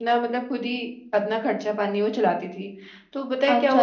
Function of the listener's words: listening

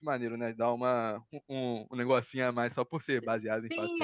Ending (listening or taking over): taking over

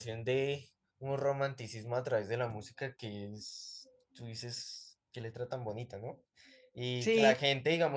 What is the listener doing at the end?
listening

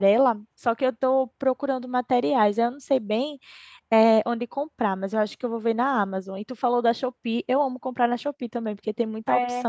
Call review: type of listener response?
taking over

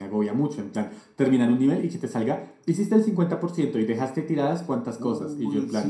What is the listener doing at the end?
taking over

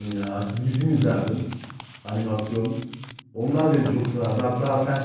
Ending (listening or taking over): listening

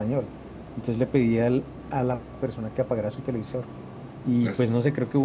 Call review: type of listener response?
listening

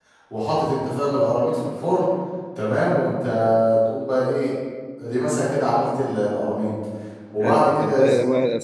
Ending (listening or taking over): taking over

